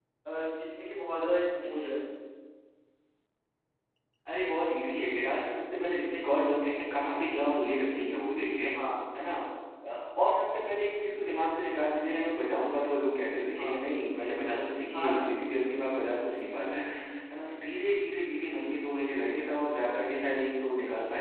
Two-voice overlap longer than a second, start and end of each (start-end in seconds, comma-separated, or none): none